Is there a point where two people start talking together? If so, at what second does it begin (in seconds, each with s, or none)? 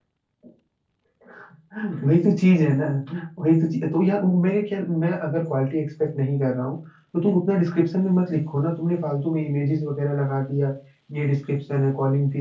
none